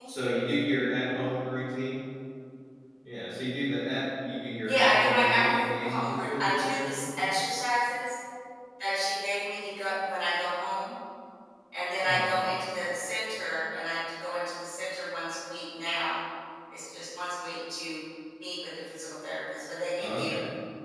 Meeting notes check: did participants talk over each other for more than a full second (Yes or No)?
Yes